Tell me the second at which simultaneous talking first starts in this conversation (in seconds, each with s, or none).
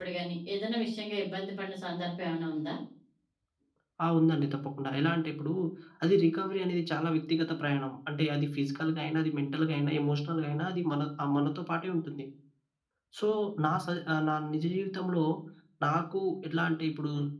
none